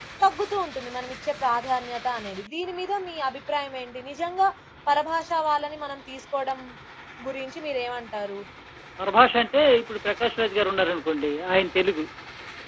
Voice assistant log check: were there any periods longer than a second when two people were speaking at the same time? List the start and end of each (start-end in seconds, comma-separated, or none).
none